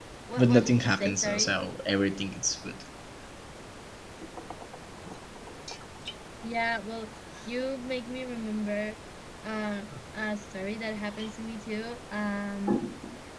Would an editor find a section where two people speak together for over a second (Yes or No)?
Yes